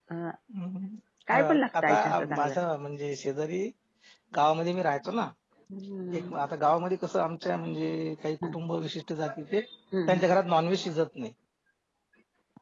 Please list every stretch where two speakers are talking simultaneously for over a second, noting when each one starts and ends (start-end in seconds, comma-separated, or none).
1.3-2.5